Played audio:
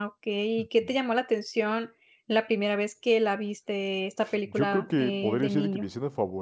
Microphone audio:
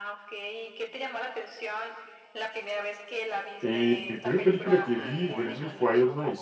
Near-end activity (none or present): present